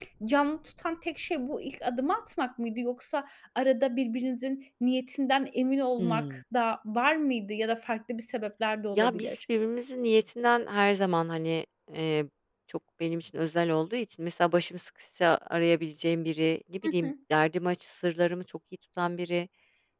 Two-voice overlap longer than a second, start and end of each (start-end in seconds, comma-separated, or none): none